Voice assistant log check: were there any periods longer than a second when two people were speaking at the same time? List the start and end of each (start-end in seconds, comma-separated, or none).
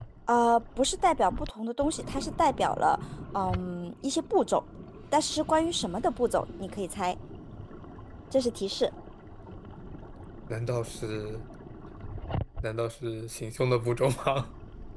none